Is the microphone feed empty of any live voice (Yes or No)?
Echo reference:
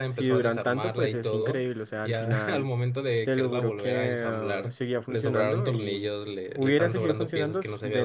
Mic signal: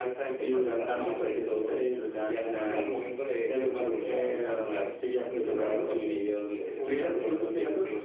Yes